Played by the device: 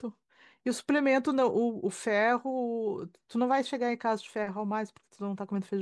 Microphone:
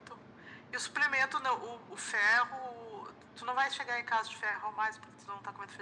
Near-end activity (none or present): none